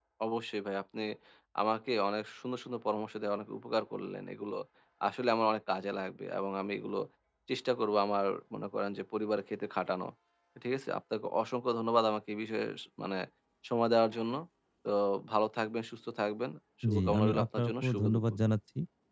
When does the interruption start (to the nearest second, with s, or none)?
17 s